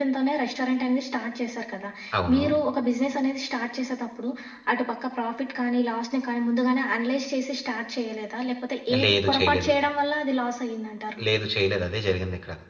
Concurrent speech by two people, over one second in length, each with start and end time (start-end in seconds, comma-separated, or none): none